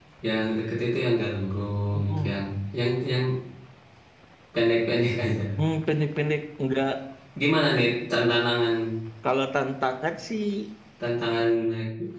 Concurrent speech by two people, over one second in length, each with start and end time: none

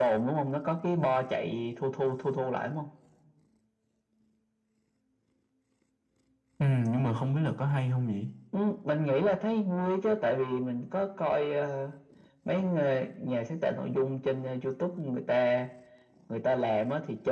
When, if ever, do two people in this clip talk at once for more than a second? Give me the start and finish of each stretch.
none

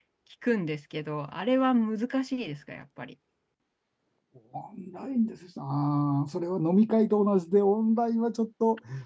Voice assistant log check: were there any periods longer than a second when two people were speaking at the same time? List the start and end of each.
none

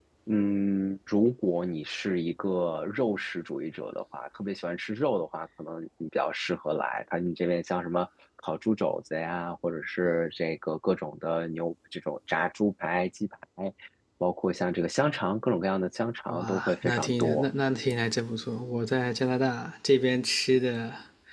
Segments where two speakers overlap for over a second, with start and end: 16.3-17.5

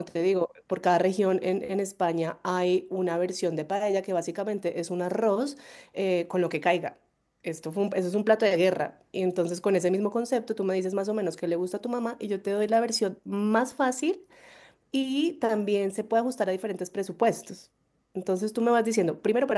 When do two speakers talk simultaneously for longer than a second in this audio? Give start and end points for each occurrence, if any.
none

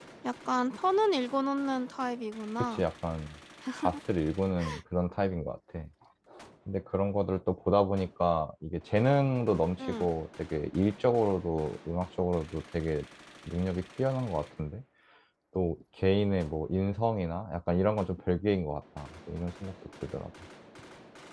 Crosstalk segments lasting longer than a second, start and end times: none

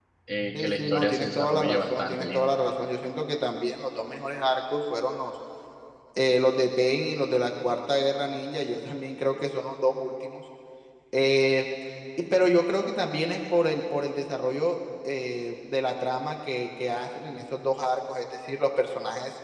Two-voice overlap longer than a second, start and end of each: 0.5-2.4

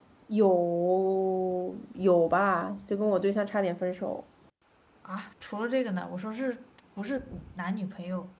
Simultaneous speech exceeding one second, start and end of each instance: none

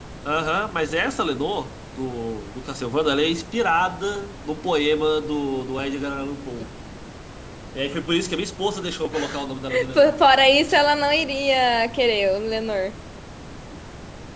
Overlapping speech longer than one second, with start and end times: none

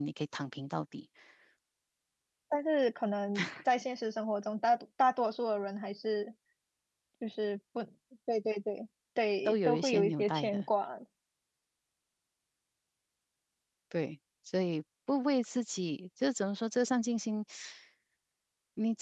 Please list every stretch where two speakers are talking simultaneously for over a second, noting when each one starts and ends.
9.4-10.6

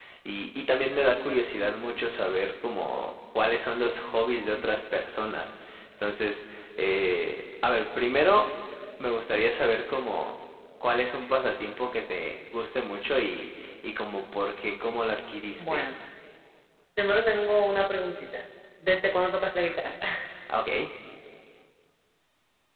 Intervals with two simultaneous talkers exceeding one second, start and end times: none

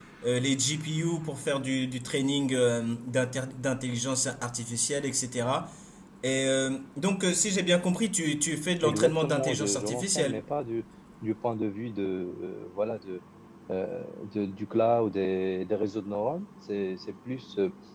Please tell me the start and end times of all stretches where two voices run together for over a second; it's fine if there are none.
8.8-10.4

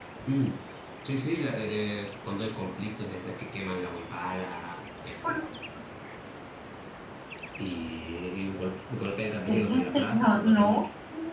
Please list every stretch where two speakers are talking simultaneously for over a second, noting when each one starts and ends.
9.5-10.8

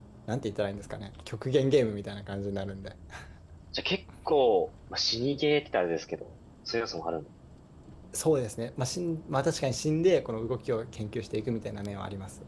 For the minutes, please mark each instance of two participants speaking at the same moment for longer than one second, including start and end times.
none

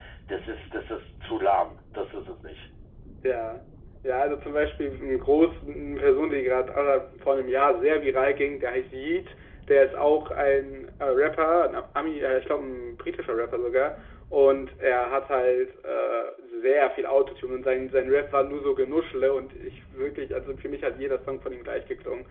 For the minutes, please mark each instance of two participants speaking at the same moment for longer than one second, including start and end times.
none

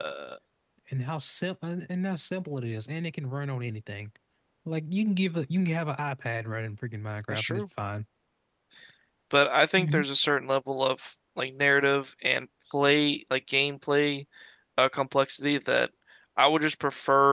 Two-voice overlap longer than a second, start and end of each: none

